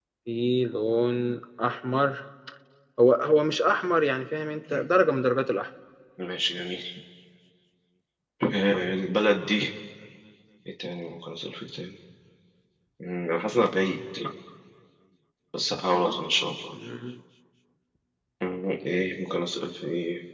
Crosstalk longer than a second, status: none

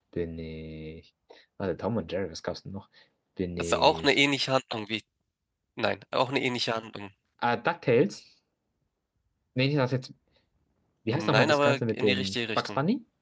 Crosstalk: present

